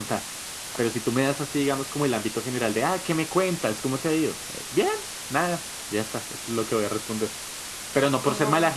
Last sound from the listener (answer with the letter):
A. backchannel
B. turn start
A